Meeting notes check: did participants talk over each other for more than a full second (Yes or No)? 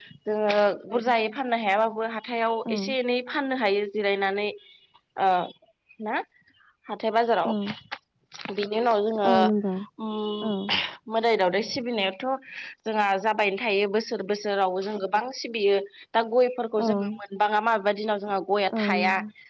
No